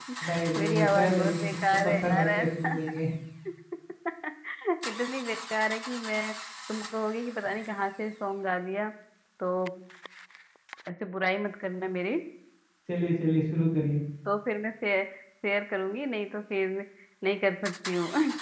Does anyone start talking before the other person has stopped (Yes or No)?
Yes